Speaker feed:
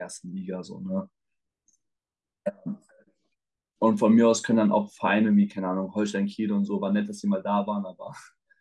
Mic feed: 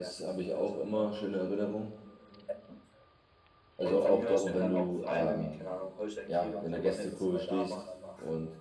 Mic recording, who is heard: both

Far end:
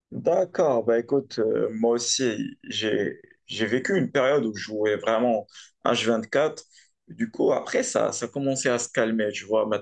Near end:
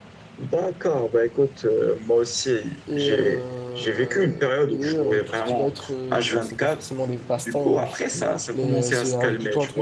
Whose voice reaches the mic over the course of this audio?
both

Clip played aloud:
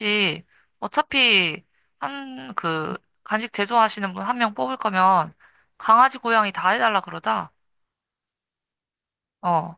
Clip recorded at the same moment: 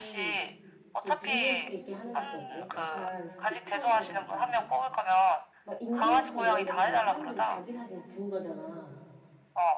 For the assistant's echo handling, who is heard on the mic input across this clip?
both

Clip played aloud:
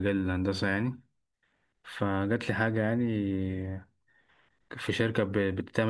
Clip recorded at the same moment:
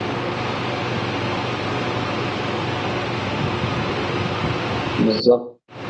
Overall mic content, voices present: user only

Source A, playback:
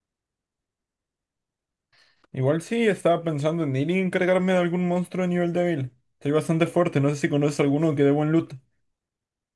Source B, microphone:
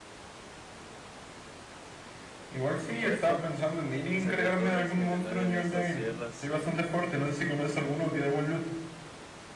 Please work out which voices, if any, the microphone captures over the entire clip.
both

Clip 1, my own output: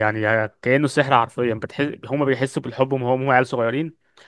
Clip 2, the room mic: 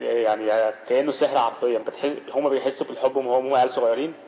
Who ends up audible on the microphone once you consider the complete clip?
echo only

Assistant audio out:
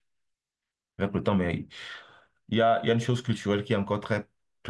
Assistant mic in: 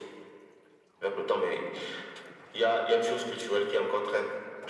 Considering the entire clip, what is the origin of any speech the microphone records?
echo only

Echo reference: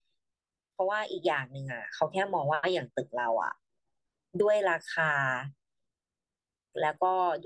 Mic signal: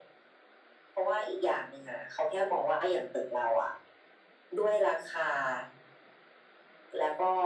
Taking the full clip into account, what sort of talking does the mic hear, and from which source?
echo only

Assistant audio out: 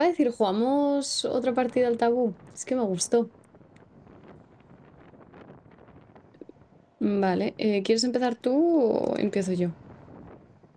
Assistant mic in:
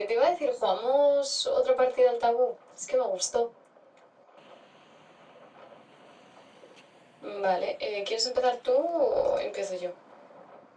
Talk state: echo only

